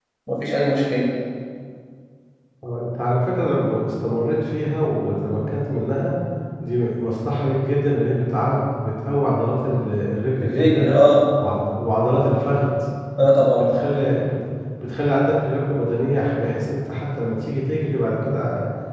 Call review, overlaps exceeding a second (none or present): none